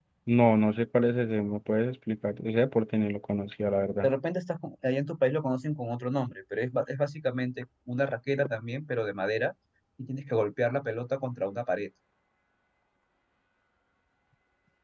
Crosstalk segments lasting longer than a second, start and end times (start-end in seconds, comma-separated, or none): none